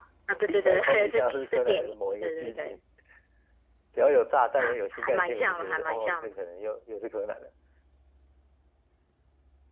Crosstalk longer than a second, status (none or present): present